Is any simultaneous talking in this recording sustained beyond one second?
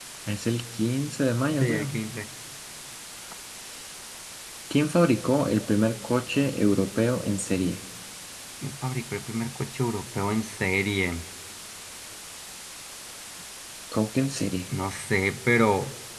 No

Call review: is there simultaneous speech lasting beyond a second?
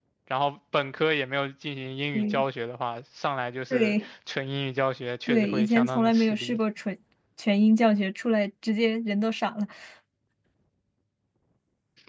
Yes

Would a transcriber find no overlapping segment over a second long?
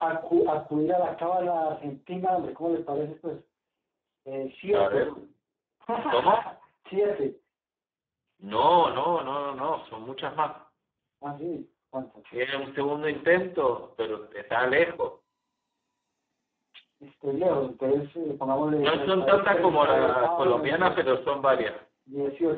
No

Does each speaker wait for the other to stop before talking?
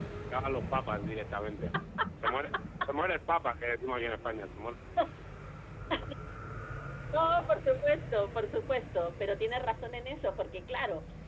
Yes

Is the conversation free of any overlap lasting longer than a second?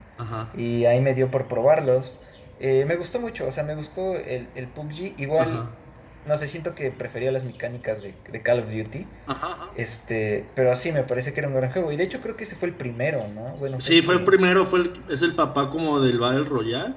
Yes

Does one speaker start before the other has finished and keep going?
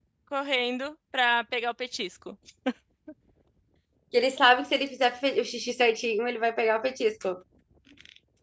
No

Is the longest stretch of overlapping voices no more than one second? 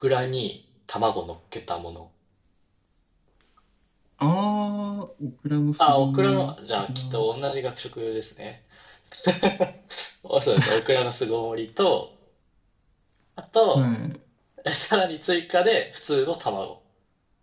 No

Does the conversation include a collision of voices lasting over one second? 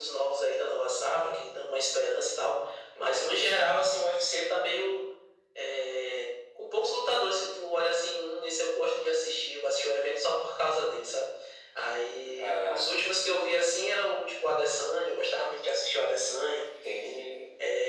No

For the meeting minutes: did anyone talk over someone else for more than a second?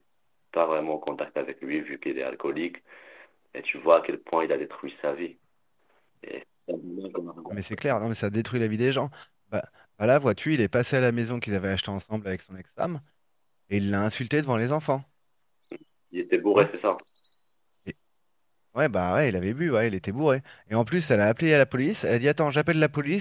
No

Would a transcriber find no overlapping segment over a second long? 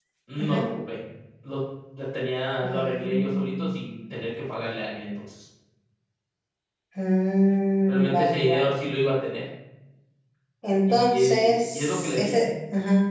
No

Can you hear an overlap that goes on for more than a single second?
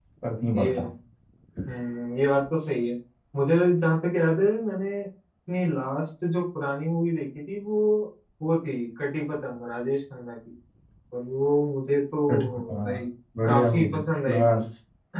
Yes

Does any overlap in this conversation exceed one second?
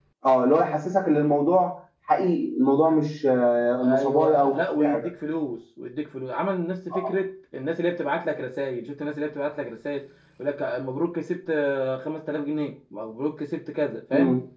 Yes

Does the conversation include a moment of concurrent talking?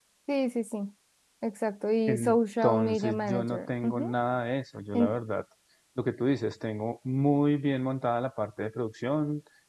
Yes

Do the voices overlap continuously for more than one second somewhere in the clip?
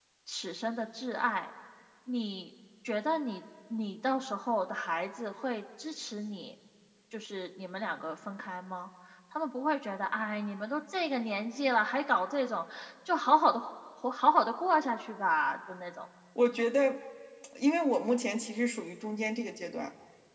No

